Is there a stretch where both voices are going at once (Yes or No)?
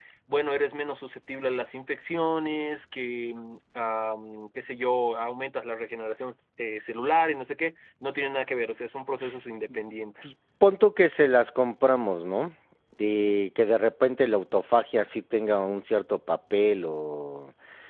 No